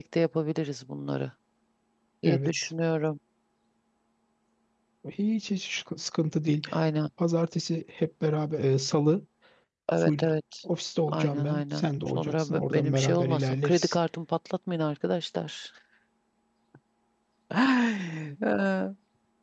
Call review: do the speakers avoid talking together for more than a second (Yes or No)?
No